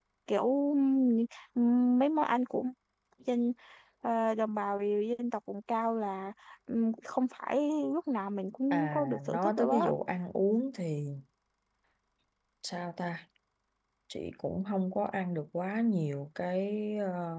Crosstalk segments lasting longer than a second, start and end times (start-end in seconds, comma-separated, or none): 8.7-9.9